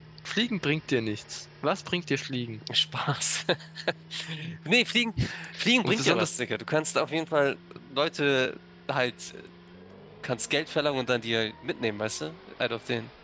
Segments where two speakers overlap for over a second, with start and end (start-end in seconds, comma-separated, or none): none